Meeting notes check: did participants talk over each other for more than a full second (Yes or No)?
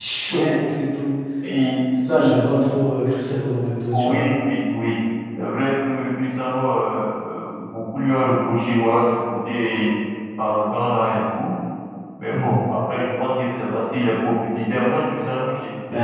No